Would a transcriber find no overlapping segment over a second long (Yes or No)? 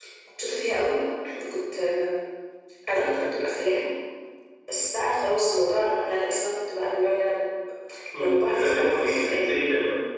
No